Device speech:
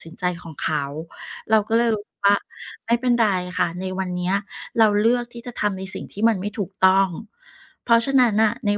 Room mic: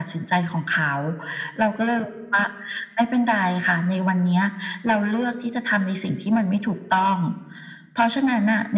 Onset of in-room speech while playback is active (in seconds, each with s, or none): none